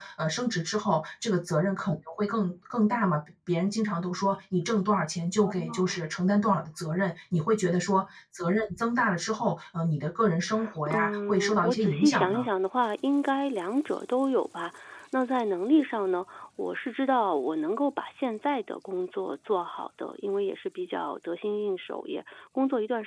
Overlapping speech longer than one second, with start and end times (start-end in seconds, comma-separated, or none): 10.9-12.5